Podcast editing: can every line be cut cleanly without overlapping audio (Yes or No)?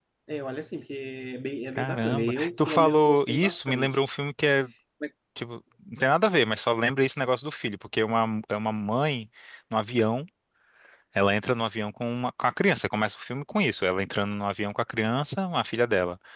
No